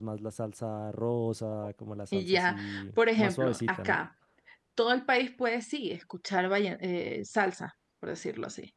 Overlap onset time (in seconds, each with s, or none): 2.1 s